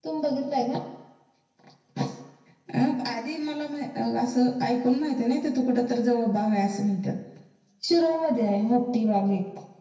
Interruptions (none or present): none